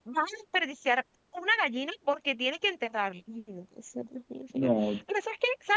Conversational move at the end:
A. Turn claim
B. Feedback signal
B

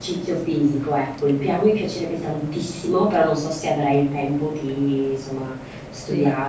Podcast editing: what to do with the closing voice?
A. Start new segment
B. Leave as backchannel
B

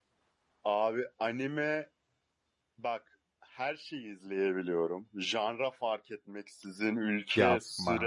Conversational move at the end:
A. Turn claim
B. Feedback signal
B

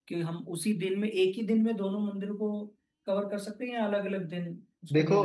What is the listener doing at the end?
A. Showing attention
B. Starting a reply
B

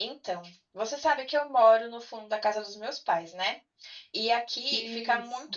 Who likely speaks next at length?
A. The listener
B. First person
B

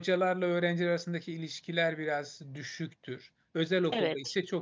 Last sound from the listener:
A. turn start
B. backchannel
B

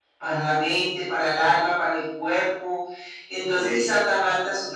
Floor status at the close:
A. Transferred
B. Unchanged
B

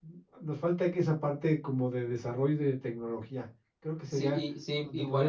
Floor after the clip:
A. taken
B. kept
A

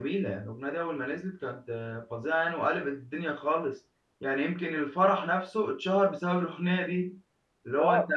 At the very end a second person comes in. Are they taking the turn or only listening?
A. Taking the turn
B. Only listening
A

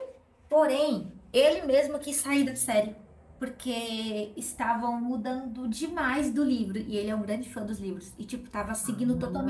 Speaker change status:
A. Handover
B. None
A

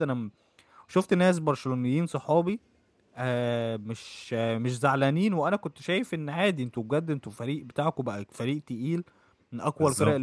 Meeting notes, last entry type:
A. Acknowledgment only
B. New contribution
A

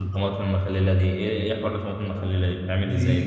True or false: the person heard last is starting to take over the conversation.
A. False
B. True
B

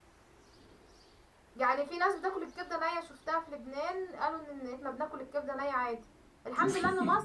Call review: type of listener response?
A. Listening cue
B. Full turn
A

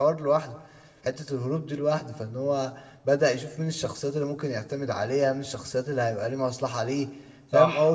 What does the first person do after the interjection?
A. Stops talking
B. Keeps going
A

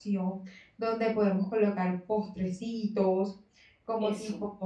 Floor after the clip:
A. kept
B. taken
A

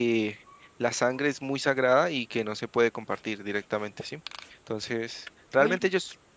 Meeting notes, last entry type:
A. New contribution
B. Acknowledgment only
B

